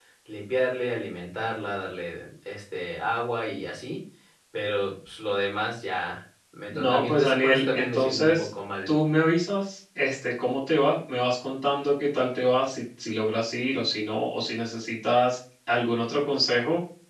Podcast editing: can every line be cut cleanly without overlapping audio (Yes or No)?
No